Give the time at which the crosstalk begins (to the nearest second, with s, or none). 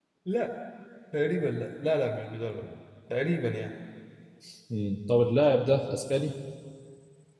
none